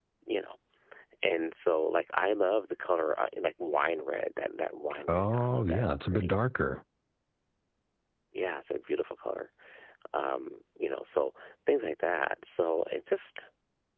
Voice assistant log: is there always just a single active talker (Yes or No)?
No